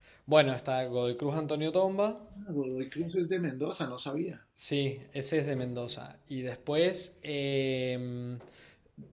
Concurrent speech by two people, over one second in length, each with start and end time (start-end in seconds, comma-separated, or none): none